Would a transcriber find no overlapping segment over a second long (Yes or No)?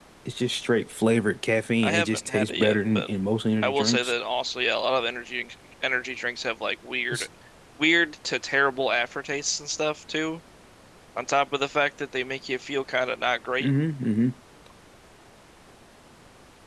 No